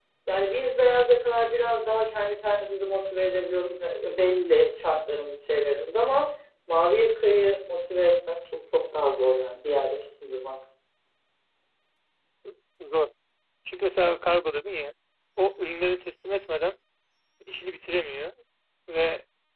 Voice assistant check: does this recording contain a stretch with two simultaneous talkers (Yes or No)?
No